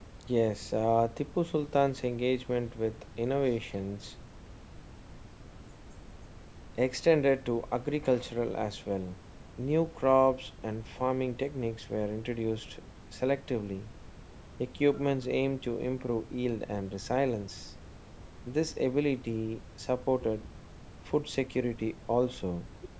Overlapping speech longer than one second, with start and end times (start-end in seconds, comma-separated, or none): none